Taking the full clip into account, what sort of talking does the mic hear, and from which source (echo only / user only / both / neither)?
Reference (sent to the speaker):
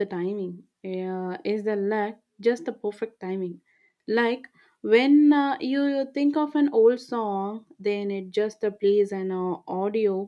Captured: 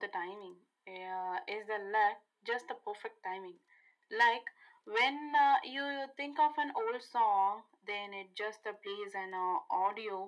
echo only